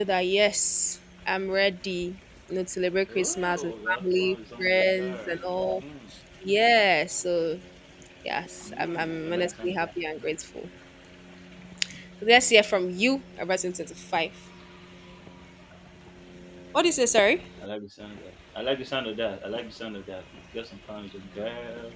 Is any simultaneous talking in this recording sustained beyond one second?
Yes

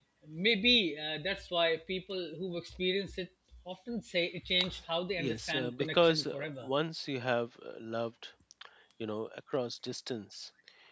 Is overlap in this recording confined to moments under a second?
No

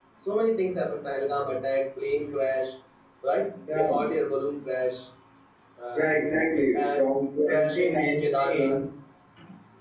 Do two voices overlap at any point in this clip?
Yes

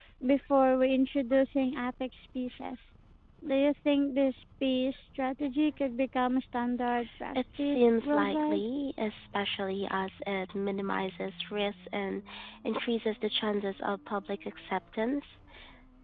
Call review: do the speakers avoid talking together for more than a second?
No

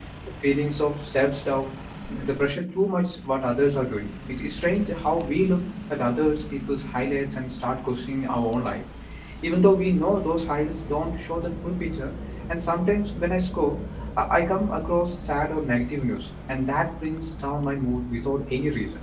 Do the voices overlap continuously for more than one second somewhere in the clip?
No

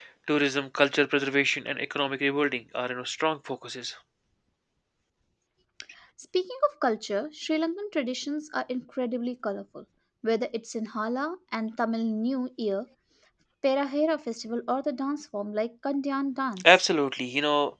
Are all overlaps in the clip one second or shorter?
Yes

